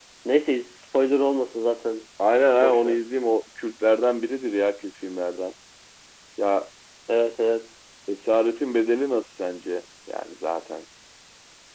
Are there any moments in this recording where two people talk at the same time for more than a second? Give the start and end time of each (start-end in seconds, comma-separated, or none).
none